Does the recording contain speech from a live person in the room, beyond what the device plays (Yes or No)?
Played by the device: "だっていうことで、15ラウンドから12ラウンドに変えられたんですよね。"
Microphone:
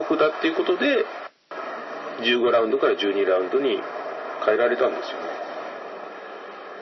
No